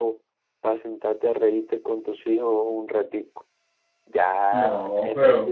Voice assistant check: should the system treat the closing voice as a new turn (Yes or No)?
No